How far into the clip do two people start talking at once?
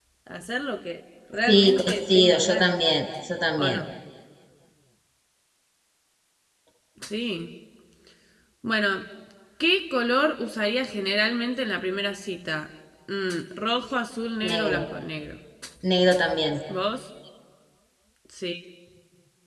1 s

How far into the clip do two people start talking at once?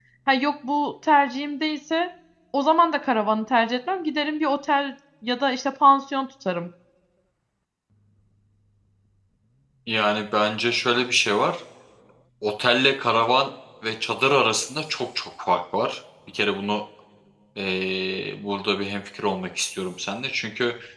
none

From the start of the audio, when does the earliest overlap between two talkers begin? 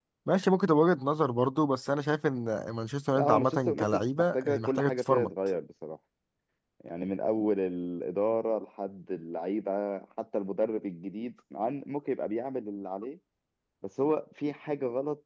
3 s

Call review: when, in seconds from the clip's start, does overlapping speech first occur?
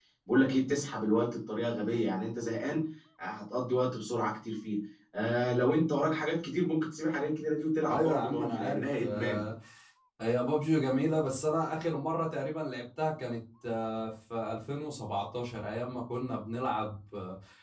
8 s

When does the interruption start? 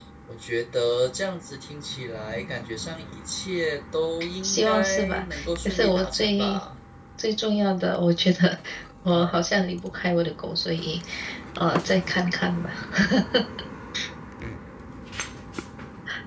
4 s

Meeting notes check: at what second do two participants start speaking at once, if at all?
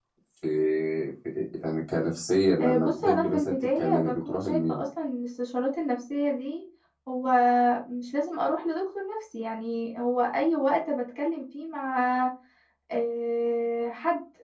3 s

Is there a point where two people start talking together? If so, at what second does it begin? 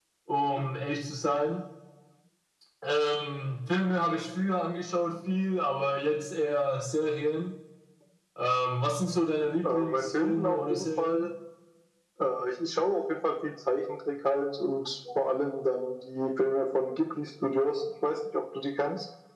10 s

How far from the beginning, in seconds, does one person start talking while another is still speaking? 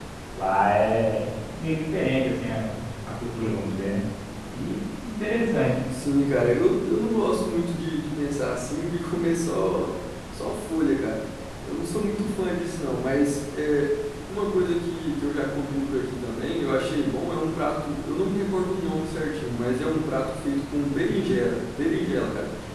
none

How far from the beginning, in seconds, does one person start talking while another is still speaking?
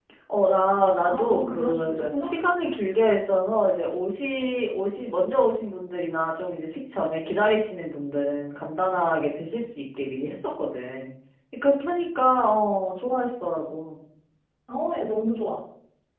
1 s

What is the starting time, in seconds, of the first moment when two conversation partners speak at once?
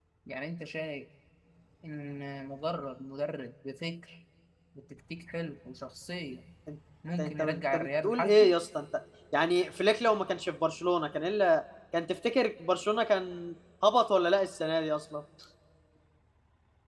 7 s

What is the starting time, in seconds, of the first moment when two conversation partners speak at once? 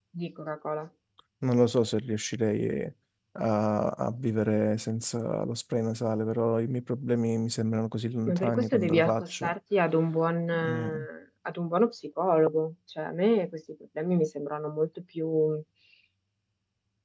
8 s

